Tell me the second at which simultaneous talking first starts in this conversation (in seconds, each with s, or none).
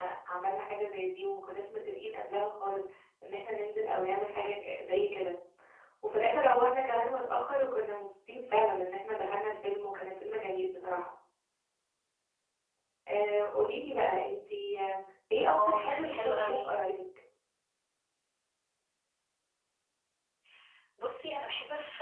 15.4 s